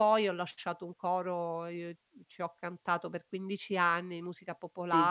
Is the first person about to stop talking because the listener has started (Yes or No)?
No